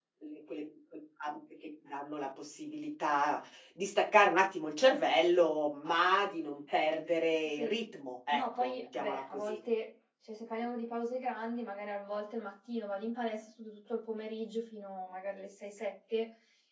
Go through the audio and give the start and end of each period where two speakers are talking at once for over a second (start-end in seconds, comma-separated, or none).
8.3-9.6